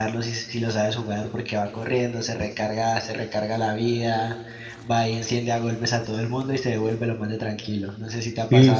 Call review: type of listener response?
taking over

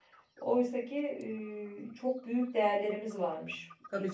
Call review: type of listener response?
taking over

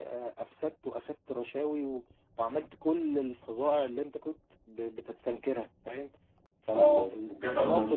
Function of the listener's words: taking over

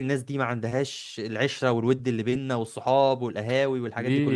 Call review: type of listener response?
taking over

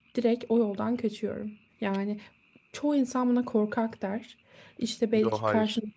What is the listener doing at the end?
listening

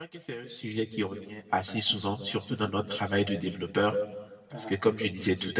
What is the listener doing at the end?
listening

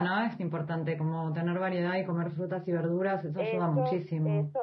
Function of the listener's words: taking over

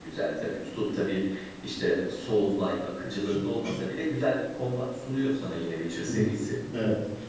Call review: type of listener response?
taking over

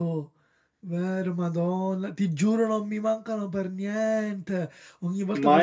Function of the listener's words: listening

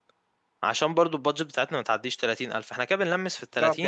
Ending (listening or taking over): taking over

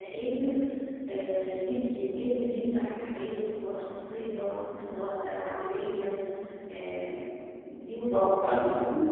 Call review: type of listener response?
taking over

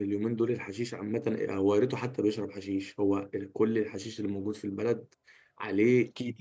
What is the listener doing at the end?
listening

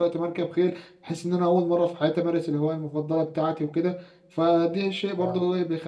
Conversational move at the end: listening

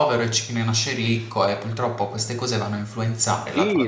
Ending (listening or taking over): taking over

